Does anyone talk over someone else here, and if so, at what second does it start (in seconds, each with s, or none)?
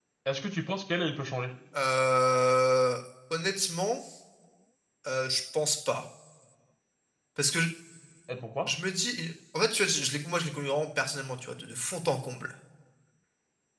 none